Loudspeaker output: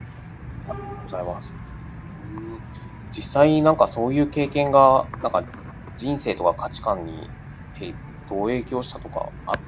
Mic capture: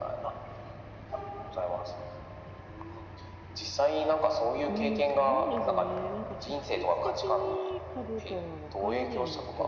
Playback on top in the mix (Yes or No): Yes